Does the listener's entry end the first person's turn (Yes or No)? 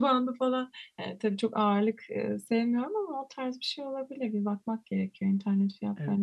Yes